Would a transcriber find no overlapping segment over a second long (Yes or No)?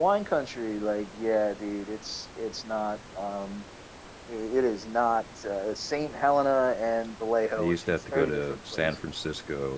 No